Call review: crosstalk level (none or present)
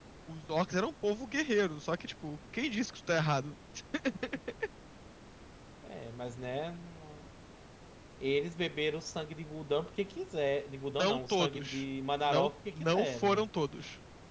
present